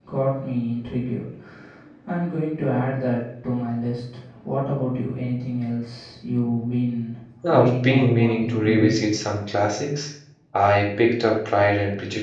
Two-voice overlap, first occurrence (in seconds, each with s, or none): 7.4 s